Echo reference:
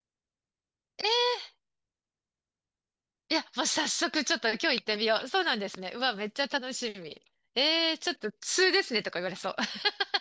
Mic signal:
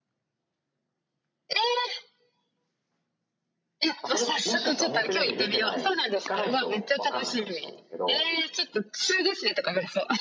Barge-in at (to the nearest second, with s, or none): 4 s